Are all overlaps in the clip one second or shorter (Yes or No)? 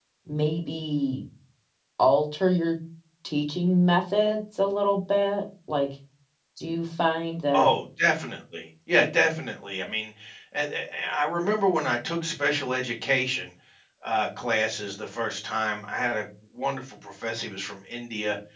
Yes